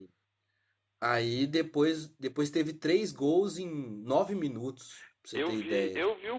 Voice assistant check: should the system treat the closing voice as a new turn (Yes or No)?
Yes